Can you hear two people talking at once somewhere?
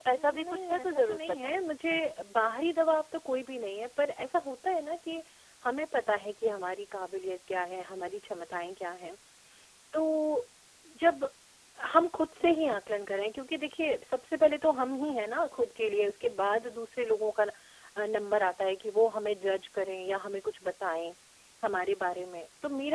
Yes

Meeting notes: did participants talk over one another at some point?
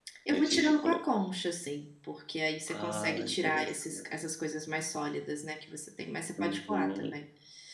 Yes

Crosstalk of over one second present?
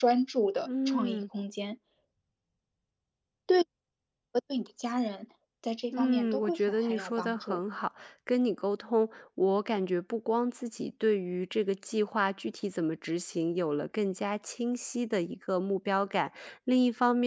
Yes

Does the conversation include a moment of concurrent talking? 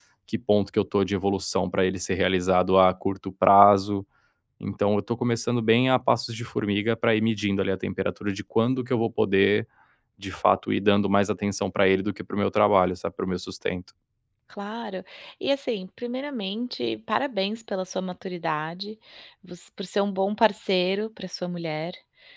No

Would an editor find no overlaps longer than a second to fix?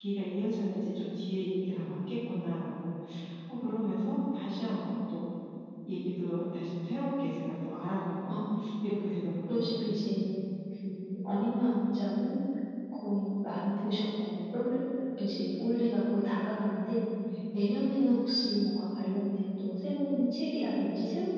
Yes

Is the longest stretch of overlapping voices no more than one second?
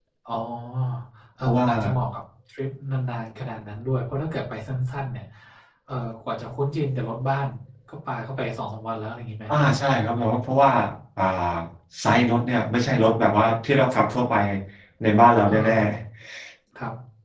Yes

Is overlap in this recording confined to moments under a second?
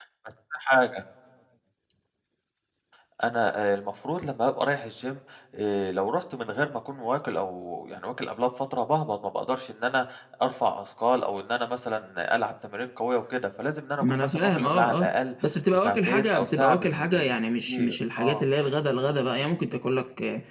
No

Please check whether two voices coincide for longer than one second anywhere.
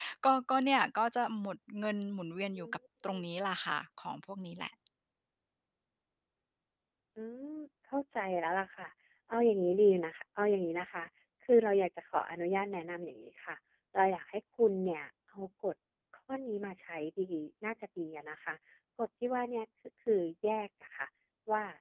No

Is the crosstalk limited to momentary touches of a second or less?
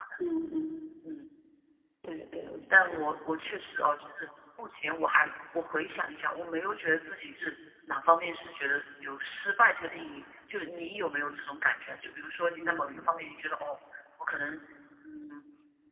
Yes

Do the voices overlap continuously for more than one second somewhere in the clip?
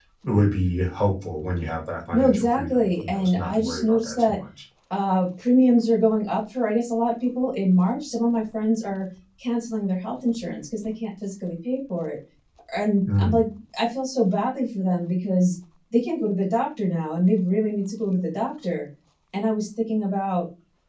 Yes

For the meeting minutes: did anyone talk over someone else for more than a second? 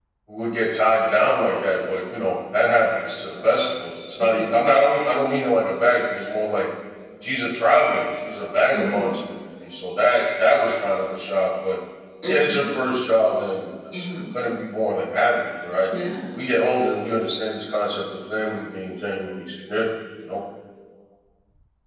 No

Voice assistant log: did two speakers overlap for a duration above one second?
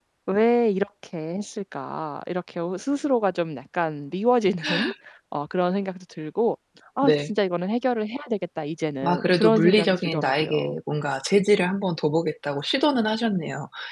Yes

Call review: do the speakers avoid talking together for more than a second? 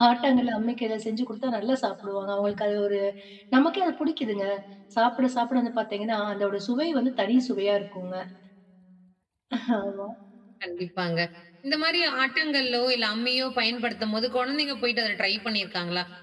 Yes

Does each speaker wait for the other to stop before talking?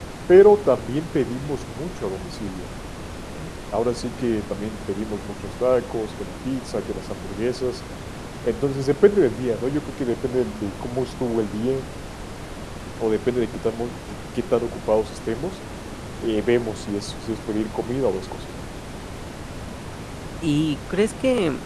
Yes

